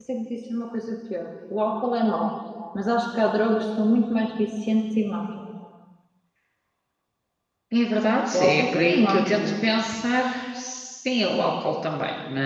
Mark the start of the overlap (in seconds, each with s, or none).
8.3 s